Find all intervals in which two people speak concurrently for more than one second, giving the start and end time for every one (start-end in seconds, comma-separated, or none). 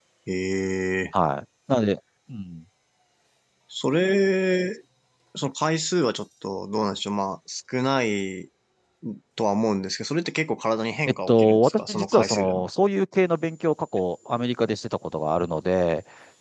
11.3-12.7